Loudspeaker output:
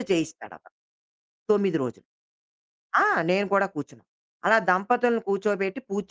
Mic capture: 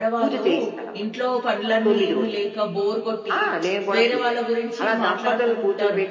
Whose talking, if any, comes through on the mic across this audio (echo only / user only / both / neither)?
both